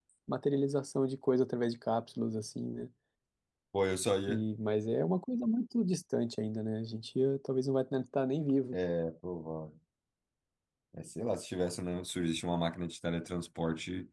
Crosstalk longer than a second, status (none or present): none